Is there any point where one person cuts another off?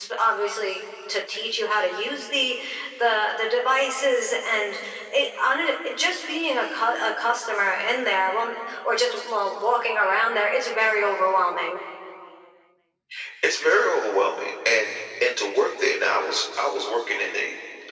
No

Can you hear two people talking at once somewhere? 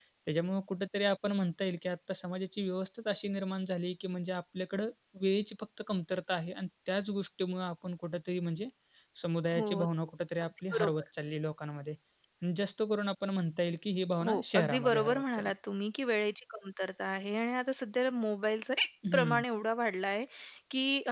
Yes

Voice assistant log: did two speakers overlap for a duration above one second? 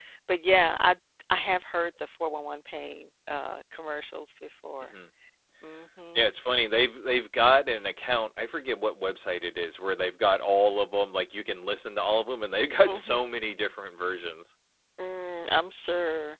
No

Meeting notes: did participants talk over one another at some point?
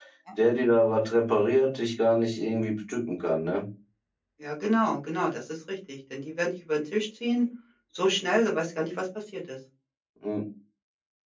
No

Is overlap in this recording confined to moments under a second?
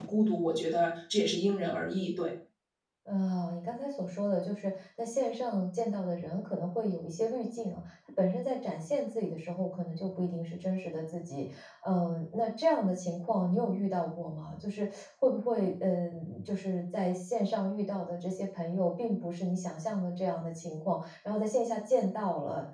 Yes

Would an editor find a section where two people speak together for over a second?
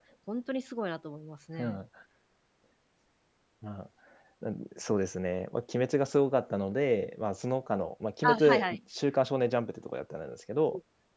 No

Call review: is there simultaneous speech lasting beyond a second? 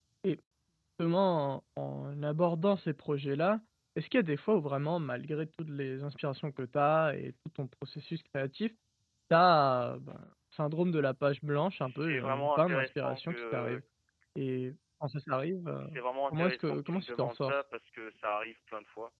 Yes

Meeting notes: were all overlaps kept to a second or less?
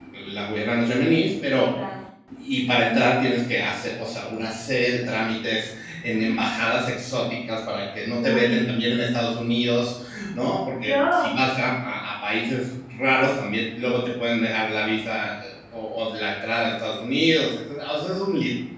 Yes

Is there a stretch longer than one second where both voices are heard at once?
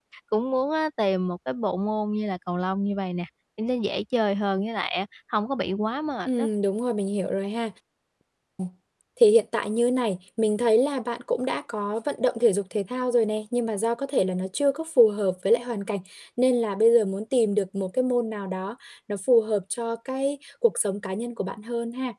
No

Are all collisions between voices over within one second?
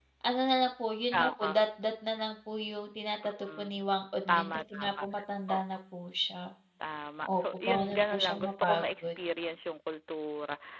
No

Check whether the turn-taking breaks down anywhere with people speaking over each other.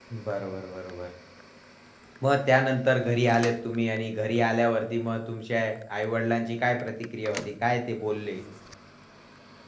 No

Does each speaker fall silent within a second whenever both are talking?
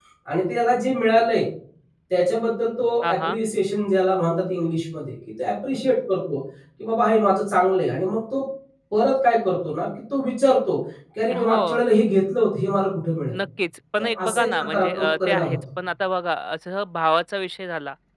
No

